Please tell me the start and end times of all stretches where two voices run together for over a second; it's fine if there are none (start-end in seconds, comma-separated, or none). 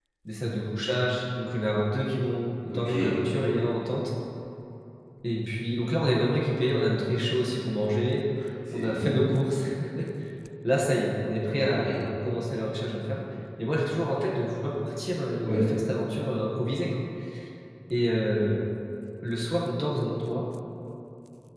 none